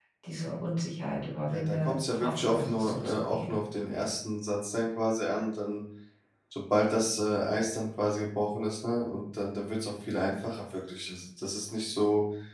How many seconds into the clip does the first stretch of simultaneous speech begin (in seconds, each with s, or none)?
1.5 s